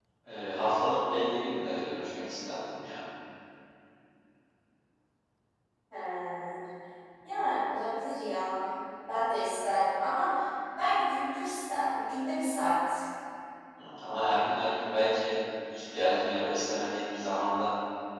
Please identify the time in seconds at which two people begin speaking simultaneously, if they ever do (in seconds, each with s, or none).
none